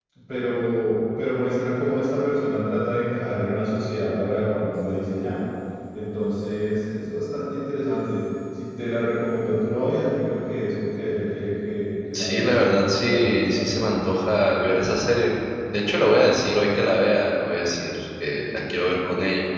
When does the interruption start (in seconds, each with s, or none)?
12.1 s